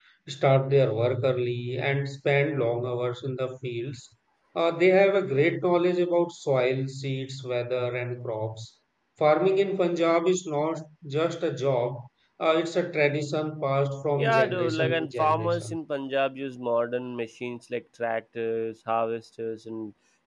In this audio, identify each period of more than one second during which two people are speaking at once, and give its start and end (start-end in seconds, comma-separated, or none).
14.2-15.8